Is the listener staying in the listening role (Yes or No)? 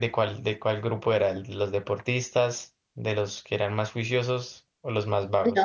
No